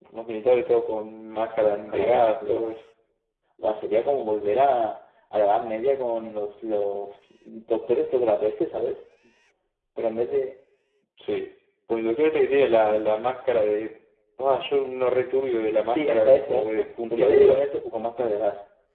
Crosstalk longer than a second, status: present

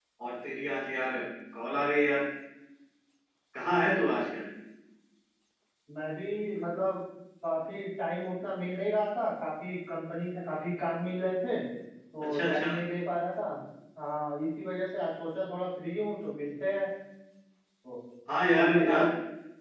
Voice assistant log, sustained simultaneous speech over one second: none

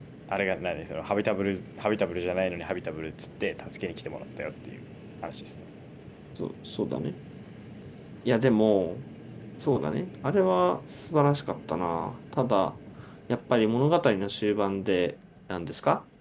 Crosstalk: none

